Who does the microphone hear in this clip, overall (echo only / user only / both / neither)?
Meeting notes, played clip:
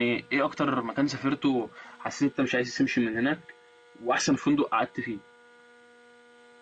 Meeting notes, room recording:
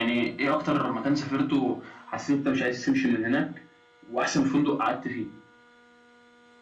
echo only